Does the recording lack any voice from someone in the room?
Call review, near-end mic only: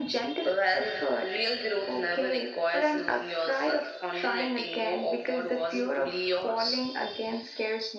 Yes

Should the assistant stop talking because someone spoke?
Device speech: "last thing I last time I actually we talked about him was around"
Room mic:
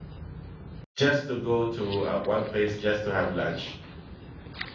Yes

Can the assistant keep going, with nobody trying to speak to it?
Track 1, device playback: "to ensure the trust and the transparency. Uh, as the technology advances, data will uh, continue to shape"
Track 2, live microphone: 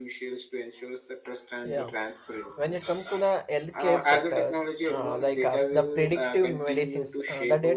No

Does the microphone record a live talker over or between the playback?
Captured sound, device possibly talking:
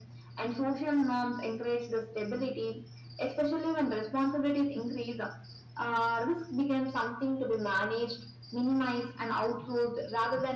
No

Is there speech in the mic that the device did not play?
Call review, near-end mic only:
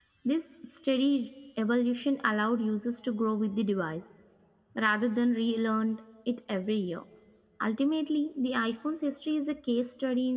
Yes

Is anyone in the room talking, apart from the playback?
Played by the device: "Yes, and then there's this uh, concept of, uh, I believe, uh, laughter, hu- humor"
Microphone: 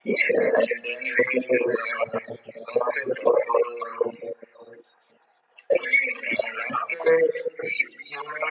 No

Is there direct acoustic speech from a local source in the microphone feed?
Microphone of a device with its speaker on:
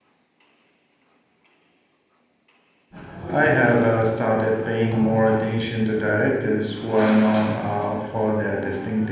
Yes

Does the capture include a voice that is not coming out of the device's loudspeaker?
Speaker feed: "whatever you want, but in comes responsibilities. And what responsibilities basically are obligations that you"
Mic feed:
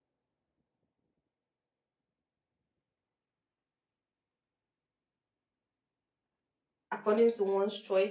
Yes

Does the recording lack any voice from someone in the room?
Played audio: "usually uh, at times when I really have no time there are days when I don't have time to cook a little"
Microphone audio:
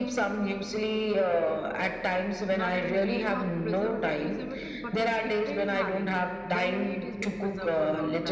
No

